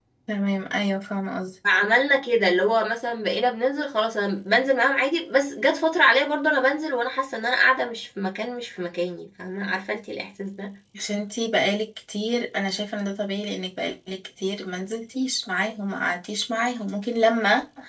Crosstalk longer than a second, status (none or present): none